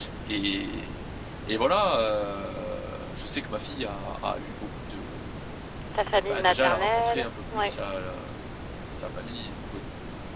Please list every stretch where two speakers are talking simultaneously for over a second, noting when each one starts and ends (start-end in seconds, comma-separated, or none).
6.3-7.7